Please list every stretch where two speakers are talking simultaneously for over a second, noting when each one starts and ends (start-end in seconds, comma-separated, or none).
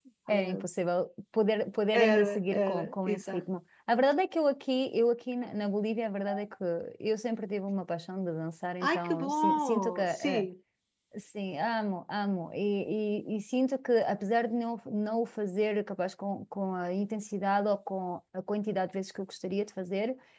1.9-3.4, 8.8-10.5